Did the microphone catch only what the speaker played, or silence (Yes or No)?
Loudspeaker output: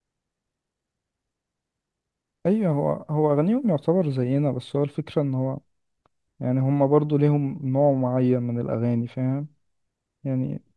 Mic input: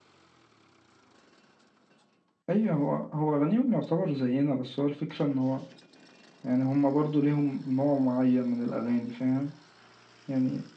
Yes